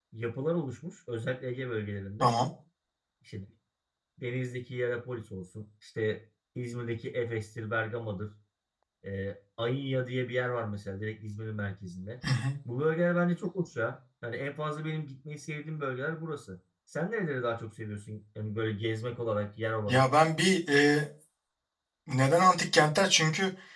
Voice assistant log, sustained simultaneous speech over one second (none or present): none